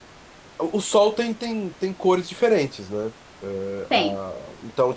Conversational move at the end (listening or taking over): listening